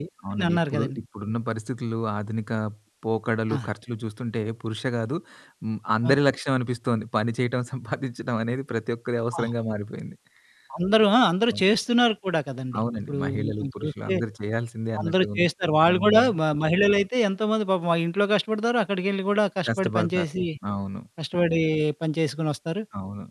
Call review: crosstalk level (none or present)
present